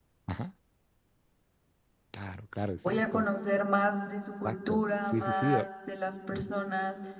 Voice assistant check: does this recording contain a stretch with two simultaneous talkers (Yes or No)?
Yes